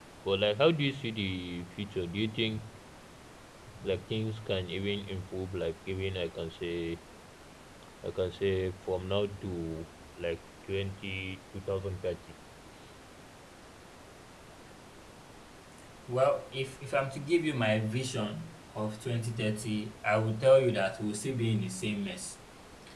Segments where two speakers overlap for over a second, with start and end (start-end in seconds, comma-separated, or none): none